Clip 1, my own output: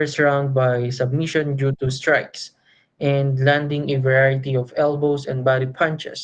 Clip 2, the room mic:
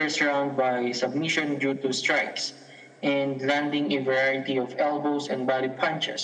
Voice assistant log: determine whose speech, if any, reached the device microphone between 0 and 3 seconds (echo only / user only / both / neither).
echo only